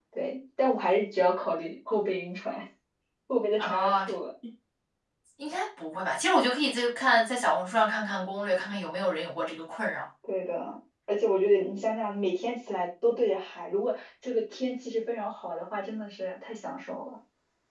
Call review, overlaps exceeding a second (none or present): none